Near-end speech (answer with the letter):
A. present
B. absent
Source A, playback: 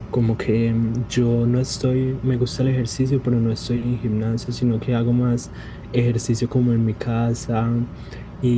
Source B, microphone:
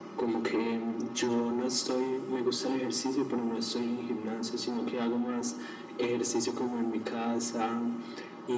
B